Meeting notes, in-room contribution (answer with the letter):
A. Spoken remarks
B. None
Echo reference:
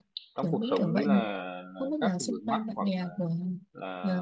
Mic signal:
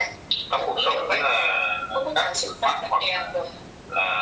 B